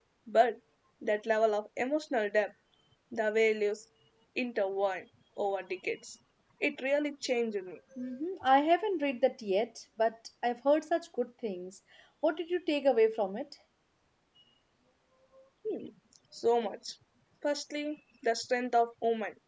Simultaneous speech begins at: none

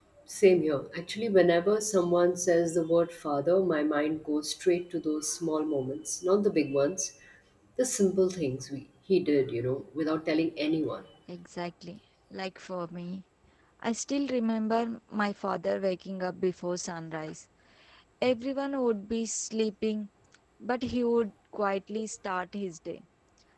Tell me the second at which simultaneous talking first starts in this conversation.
none

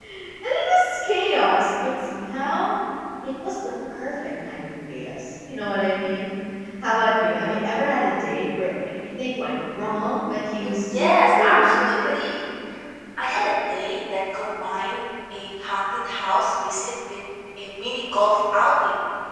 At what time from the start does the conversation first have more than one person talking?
10.6 s

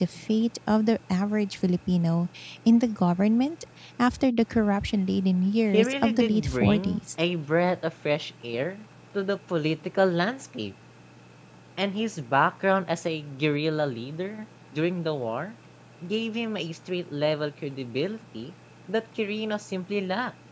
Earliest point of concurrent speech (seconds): 5.7 s

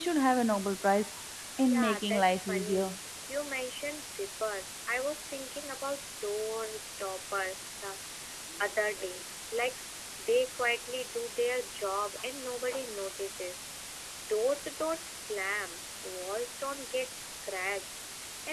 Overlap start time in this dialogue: 1.7 s

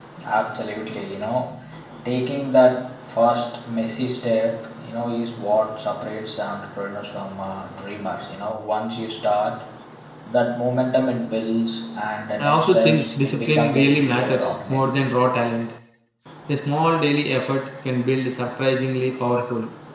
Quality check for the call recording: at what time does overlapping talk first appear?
12.4 s

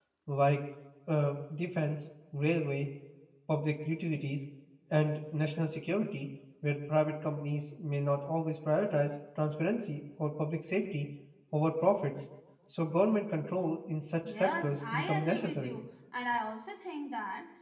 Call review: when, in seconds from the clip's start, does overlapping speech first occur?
14.2 s

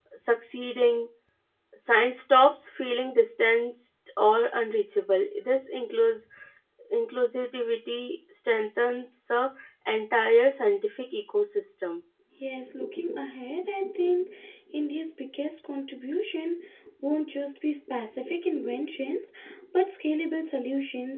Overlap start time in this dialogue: none

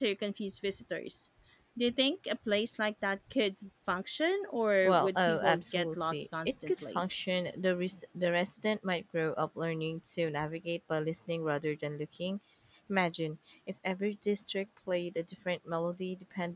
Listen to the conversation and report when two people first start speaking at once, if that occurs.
4.8 s

